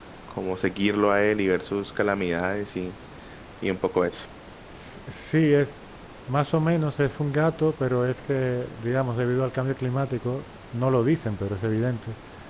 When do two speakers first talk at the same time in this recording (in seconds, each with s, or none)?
none